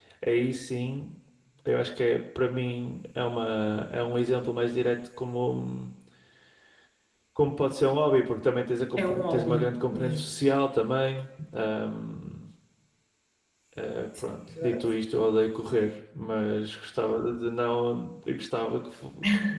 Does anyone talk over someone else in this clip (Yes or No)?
Yes